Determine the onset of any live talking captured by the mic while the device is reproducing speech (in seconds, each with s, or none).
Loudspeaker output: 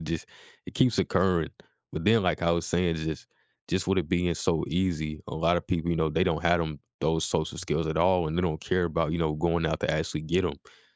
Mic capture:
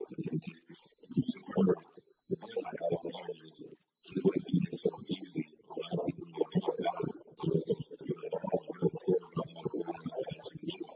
none